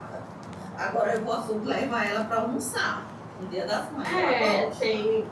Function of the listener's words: taking over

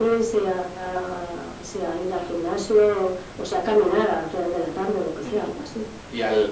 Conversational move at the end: taking over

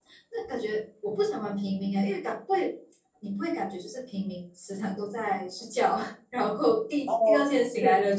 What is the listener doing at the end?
listening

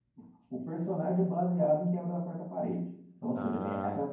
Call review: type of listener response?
listening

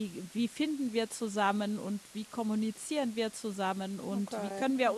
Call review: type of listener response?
listening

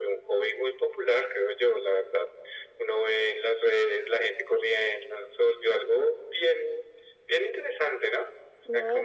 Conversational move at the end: taking over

